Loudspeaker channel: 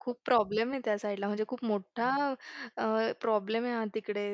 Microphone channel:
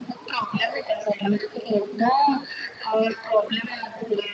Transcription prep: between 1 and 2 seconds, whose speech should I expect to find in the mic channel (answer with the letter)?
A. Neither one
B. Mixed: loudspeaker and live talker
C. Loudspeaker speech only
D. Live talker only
C